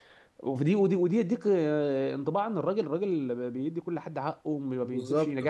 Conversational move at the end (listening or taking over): listening